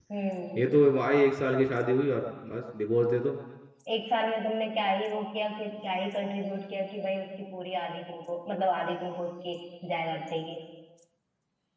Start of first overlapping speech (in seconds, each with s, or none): none